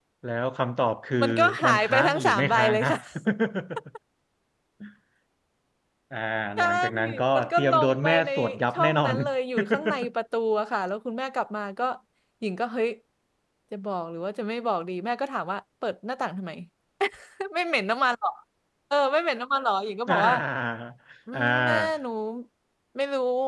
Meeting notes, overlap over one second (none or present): present